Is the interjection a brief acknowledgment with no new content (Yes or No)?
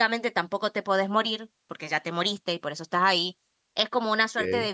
Yes